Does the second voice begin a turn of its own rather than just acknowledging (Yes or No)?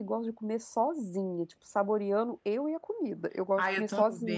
Yes